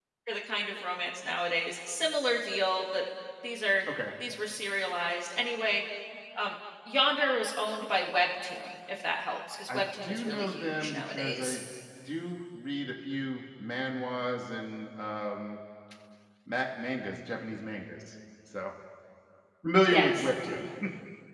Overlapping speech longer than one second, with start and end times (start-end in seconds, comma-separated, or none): 9.7-11.6